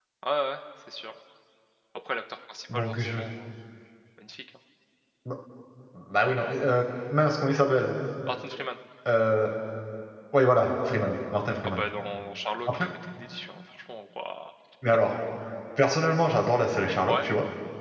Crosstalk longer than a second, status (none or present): none